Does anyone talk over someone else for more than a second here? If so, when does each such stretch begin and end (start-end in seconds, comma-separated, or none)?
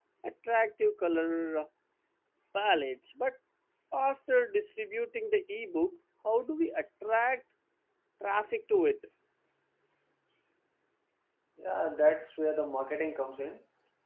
none